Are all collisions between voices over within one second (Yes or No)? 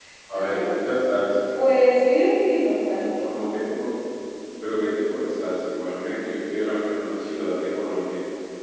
Yes